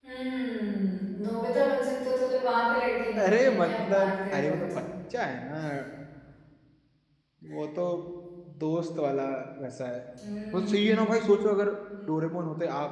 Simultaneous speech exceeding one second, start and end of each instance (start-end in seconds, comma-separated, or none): 3.2-4.8